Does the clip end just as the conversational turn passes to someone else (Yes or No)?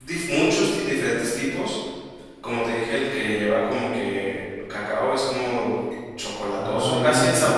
Yes